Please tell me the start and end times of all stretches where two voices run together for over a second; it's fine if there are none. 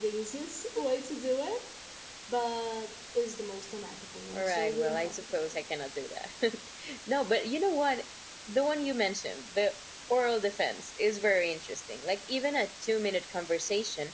4.3-5.6

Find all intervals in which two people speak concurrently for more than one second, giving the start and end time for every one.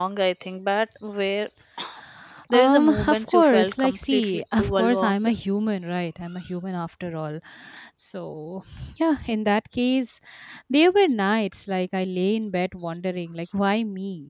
2.5-5.3

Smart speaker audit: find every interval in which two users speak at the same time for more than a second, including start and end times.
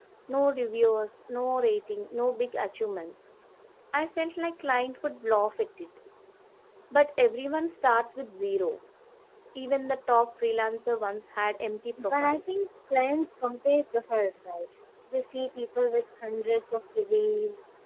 none

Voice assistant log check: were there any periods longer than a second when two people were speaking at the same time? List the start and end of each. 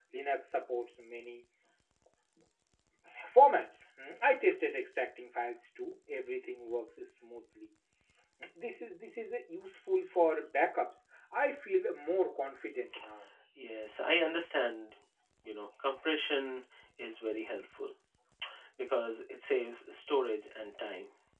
none

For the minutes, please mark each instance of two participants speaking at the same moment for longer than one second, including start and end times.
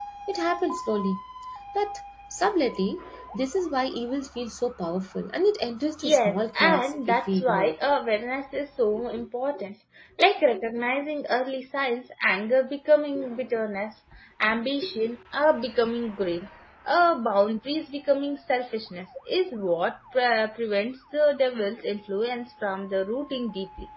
6.0-7.8

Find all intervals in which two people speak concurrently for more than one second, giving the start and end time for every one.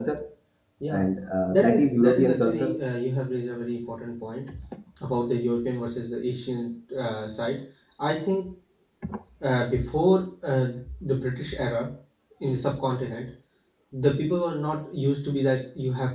1.5-2.8

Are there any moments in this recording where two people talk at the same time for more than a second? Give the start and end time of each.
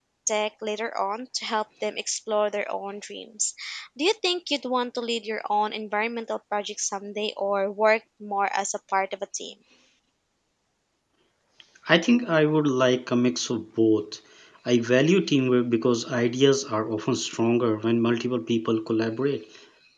none

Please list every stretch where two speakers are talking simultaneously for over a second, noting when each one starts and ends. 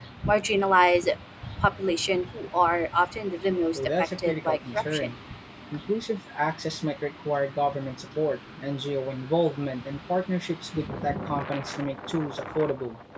3.7-5.1

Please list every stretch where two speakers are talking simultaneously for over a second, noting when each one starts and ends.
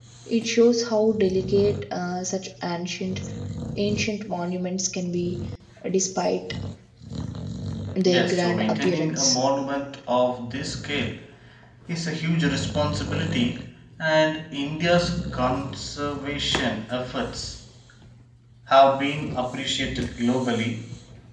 8.0-9.4

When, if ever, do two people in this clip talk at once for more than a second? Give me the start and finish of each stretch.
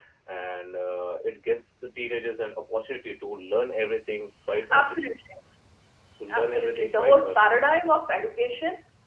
6.3-7.5

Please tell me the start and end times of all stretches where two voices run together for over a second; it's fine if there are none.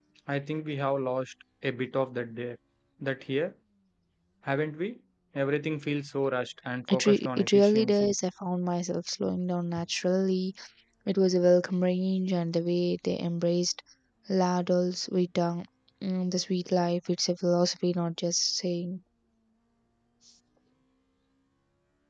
6.9-8.1

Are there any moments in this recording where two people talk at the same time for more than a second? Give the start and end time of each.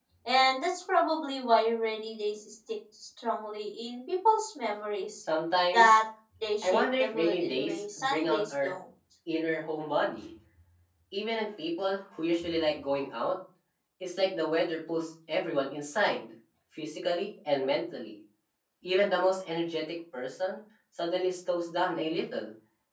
6.6-8.7

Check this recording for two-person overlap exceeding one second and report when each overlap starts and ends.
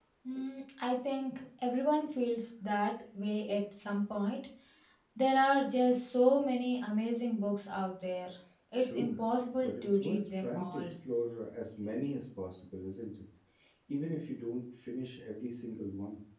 9.6-10.9

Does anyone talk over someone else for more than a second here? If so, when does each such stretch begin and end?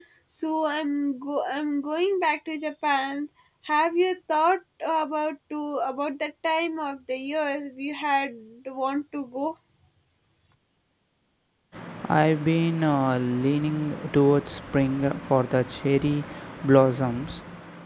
none

